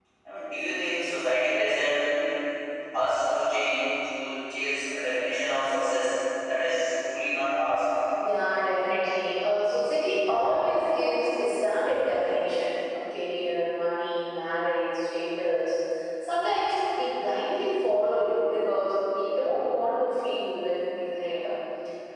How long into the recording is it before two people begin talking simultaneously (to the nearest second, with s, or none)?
none